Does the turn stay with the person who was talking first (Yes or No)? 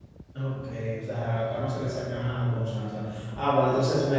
Yes